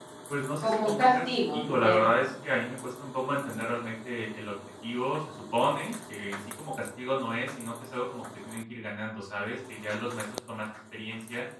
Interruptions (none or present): present